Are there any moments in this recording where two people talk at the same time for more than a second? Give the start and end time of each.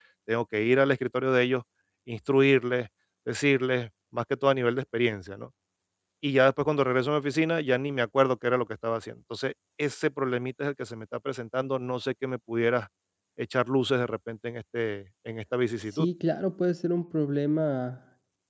none

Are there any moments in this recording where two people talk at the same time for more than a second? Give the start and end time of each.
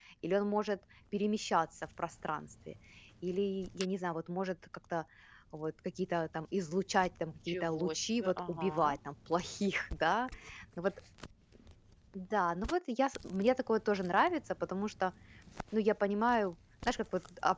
7.5-9.0

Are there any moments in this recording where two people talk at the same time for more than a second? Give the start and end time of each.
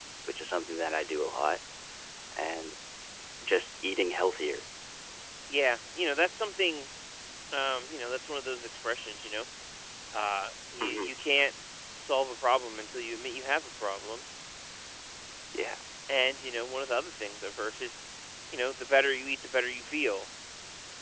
none

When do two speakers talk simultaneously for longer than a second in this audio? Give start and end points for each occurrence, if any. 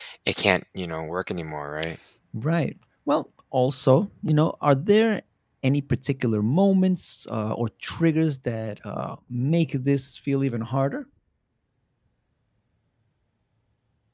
none

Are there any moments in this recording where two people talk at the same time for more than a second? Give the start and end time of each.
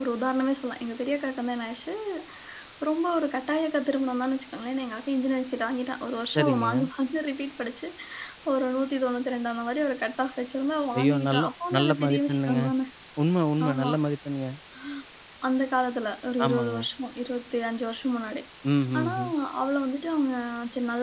11.0-12.6

